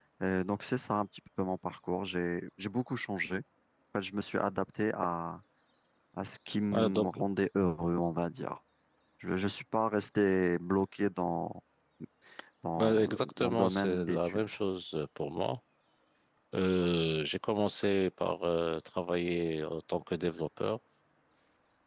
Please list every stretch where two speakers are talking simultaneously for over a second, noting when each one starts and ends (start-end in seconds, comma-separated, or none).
12.8-14.4